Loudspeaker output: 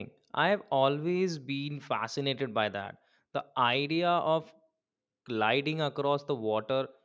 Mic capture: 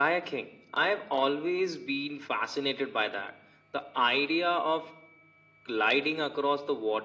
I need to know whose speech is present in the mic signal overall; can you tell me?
echo only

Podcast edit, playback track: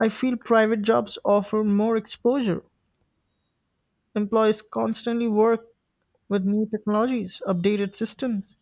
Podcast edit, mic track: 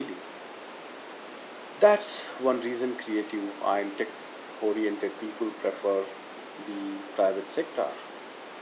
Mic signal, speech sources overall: user only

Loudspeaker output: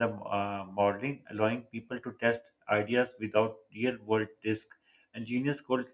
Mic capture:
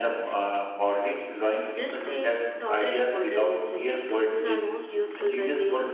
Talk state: both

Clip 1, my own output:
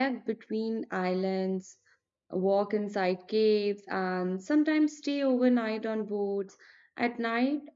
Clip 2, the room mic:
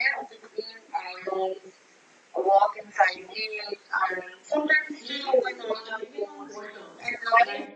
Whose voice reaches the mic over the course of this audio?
both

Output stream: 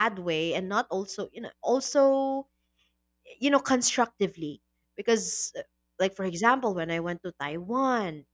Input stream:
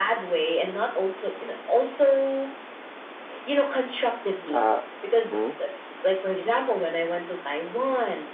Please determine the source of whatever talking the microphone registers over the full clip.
both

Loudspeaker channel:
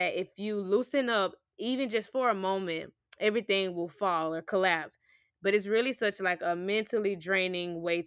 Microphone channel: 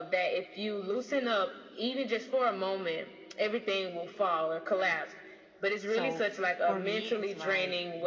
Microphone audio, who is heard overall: both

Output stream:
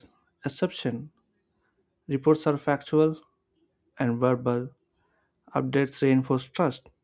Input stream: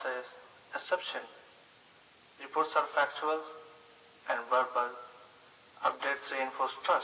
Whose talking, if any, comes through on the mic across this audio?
echo only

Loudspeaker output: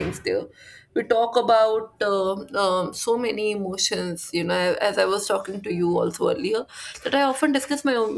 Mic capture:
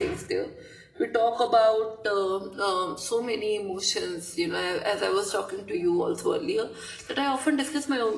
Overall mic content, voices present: echo only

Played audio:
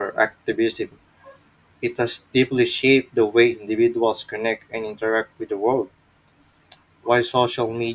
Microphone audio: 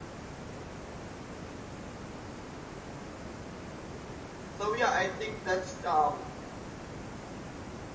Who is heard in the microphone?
user only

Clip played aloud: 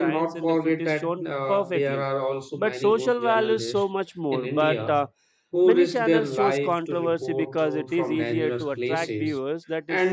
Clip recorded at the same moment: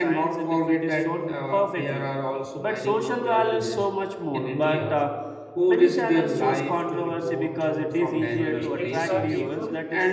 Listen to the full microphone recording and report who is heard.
both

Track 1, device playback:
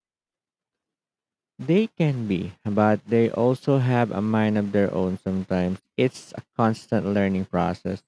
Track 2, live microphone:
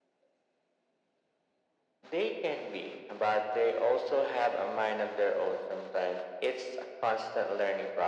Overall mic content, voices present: echo only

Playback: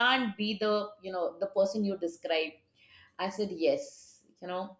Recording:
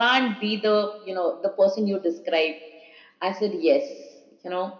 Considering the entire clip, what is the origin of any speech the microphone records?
echo only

